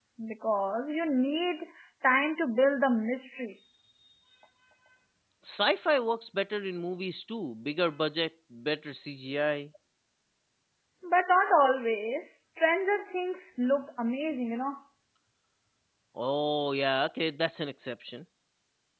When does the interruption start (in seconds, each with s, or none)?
none